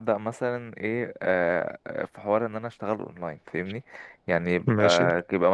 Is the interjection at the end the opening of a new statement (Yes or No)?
No